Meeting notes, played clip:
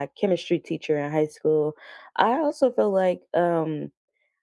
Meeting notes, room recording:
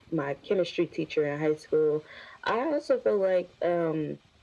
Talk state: echo only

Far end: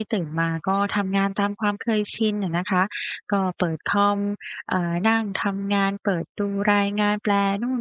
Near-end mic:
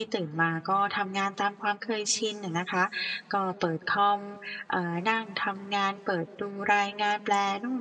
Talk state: echo only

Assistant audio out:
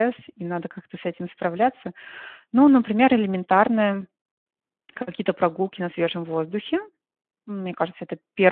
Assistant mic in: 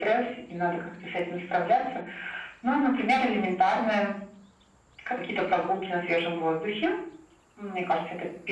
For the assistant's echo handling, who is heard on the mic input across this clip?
echo only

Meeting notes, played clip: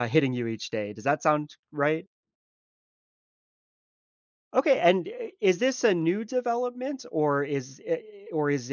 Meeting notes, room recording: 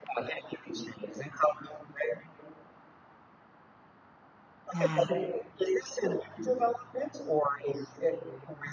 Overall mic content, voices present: both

